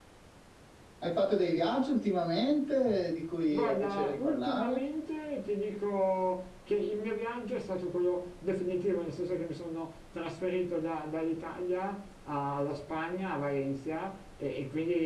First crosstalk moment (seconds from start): 3.5 s

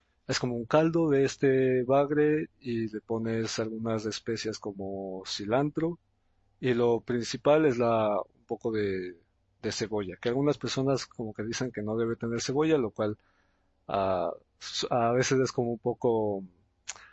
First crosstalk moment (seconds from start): none

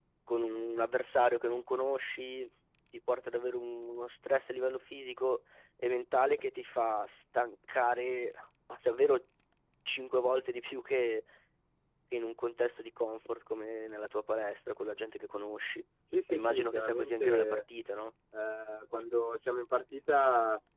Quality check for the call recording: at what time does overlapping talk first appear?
16.3 s

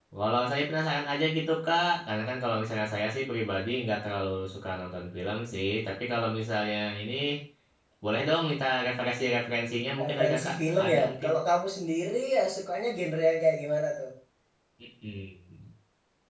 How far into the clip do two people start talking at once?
10.0 s

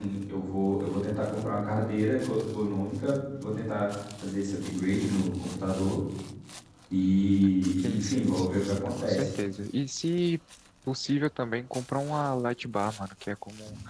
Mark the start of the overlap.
7.8 s

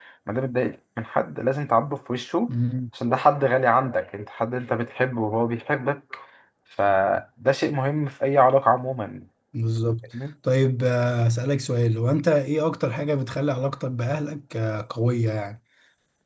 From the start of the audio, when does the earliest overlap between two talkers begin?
none

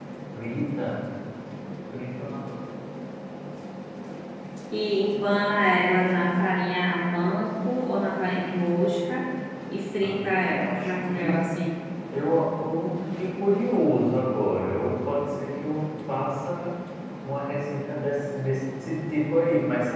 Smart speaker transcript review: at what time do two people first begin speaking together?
10.0 s

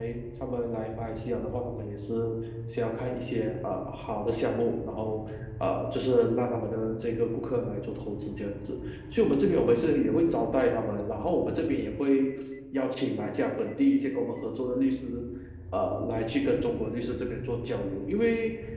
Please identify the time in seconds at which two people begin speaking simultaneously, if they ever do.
none

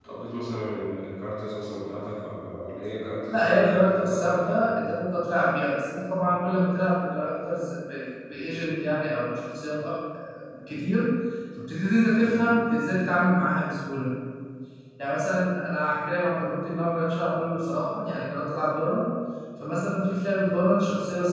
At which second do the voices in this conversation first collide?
3.3 s

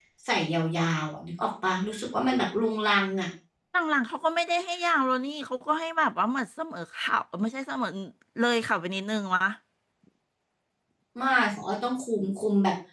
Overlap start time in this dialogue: none

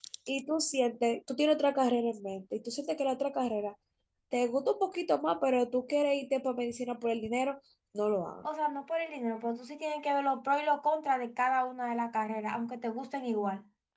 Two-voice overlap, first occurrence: none

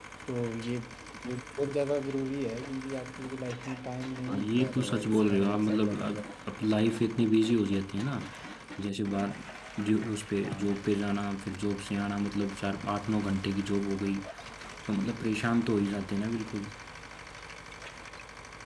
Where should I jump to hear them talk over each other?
4.3 s

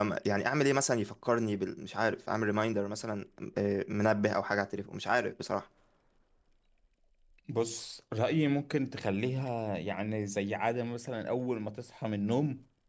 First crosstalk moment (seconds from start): none

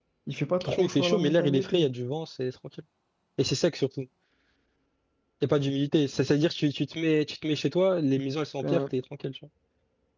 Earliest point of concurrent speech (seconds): 0.6 s

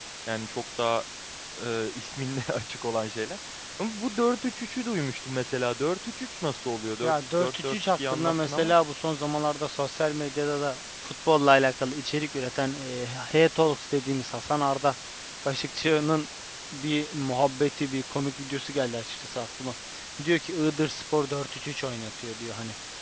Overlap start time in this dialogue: 7.0 s

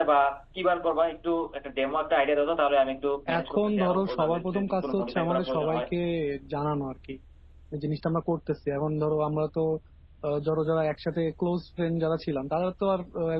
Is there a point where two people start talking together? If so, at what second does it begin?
3.3 s

